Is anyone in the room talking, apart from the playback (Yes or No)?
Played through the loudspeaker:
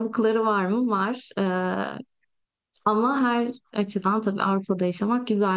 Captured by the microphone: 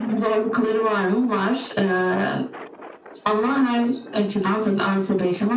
No